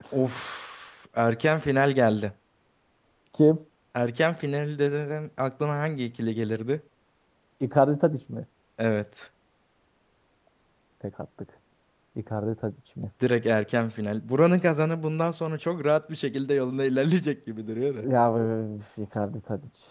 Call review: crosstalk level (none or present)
none